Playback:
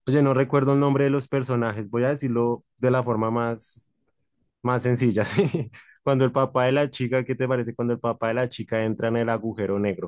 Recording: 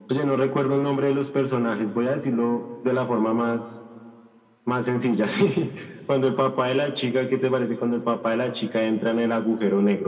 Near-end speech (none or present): none